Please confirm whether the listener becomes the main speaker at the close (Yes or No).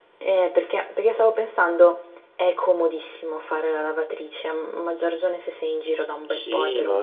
Yes